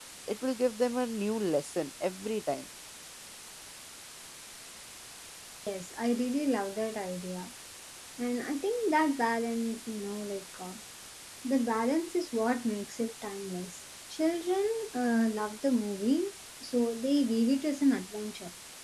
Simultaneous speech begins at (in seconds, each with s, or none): none